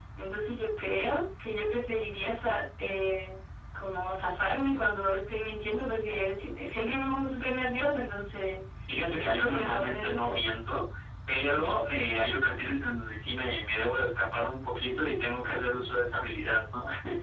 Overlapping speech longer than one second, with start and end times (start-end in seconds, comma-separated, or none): 9.1-10.4